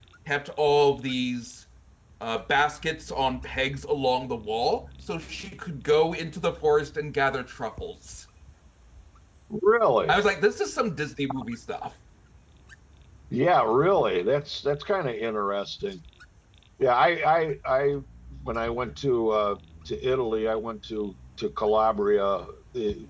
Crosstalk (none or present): none